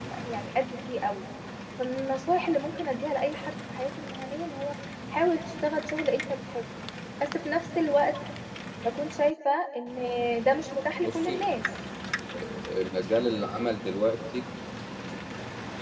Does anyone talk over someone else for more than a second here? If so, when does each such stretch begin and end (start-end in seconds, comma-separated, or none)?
none